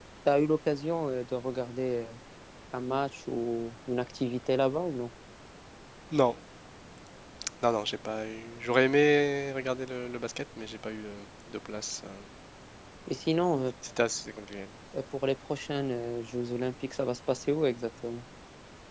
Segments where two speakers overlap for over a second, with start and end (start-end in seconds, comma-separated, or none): none